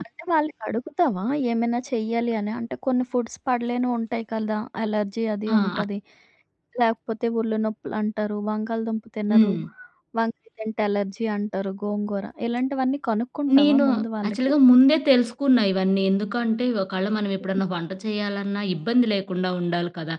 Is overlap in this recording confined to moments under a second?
Yes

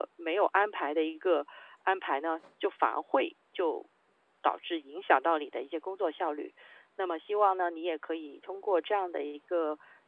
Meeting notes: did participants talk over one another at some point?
No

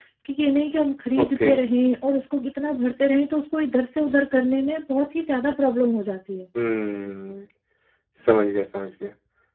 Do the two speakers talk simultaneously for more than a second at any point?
No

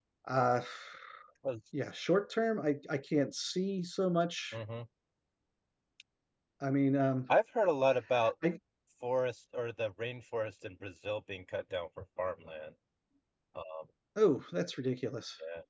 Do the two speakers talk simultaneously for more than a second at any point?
No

